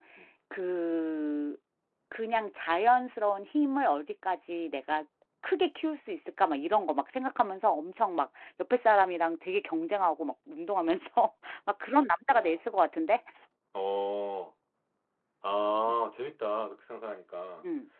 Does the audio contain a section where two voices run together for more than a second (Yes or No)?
No